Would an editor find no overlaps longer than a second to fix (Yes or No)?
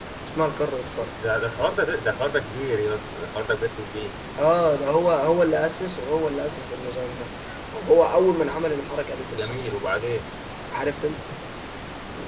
Yes